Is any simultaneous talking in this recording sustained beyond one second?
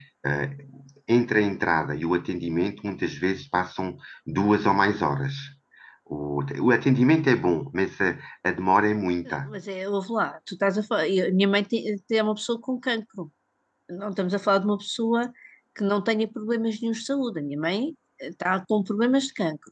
No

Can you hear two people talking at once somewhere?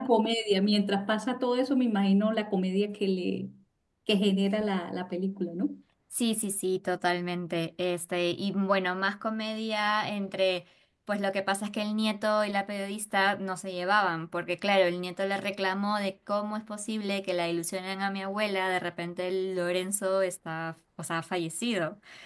No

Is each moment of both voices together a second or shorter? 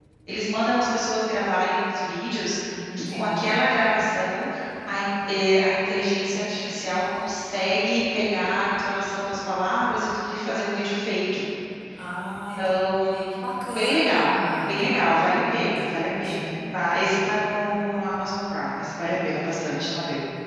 No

